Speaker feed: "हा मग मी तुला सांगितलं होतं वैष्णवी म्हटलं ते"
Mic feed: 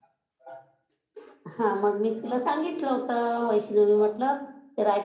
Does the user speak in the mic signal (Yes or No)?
No